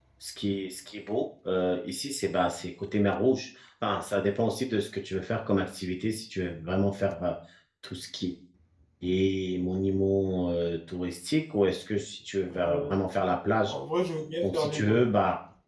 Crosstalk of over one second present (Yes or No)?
No